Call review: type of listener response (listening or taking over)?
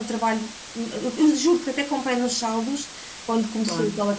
listening